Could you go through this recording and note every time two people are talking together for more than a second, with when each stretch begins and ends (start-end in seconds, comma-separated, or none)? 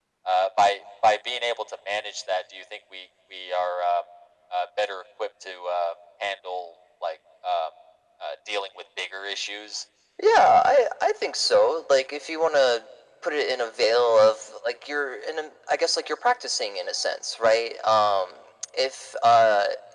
none